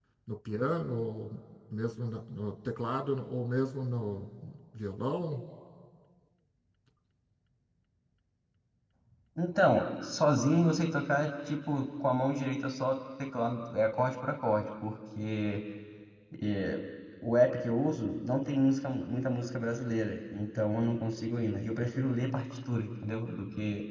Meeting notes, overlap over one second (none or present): none